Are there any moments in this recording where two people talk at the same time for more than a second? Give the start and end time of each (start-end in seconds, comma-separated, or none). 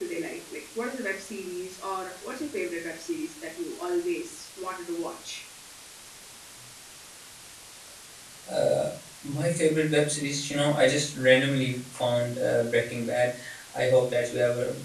none